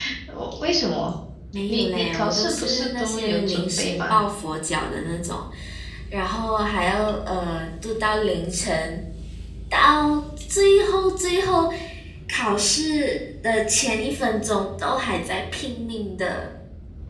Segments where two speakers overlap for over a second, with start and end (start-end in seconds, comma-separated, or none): 1.7-4.2